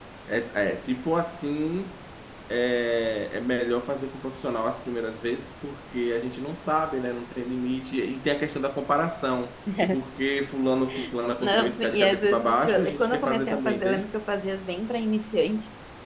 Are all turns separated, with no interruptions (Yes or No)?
No